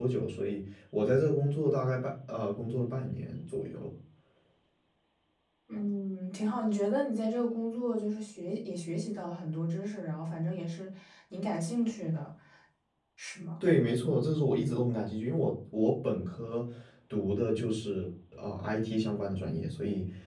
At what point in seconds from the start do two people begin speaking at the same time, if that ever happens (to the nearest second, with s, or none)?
none